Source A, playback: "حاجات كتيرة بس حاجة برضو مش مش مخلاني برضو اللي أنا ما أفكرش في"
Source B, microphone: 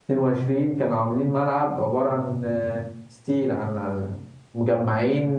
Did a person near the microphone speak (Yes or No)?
Yes